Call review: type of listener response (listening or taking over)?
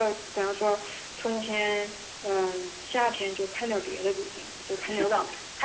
taking over